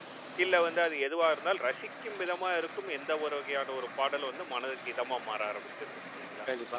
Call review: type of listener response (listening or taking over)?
taking over